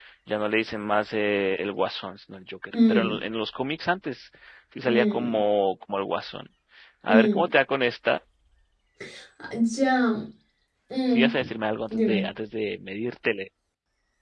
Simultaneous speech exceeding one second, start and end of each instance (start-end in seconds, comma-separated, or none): none